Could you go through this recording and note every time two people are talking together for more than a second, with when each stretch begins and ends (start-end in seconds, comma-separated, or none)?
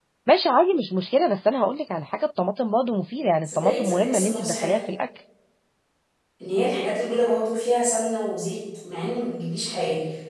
3.4-4.8